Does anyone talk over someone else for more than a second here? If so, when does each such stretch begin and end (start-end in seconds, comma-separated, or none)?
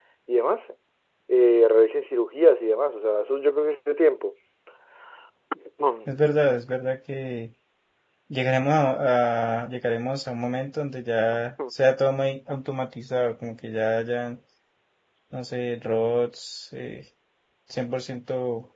none